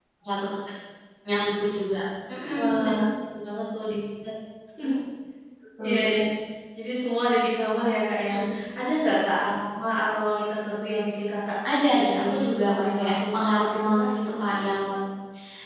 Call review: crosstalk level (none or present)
present